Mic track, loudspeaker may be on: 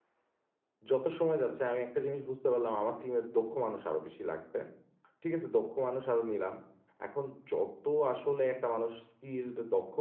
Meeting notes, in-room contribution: present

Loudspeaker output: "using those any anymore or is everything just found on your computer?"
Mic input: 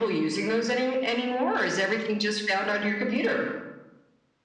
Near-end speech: none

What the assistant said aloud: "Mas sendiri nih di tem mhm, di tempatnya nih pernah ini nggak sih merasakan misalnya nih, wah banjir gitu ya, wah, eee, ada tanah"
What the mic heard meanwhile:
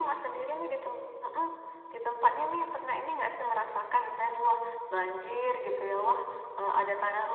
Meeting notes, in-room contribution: none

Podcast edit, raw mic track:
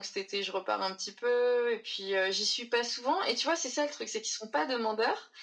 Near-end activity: none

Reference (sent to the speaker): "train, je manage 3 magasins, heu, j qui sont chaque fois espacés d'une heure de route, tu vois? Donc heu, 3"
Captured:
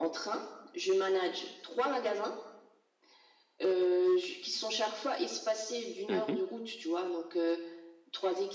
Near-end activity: present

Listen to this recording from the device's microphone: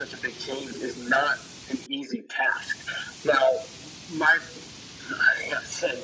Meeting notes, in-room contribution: none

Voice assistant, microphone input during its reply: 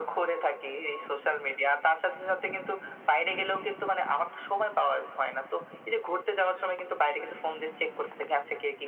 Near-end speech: none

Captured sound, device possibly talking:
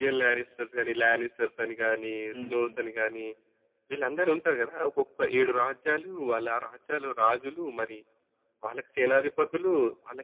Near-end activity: present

